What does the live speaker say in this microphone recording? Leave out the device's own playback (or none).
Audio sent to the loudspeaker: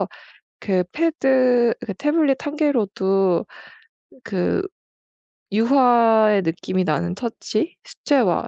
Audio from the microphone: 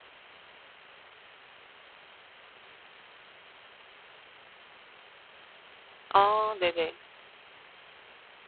아 네네.